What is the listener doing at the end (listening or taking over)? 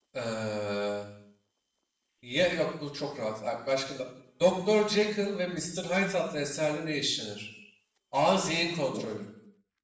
listening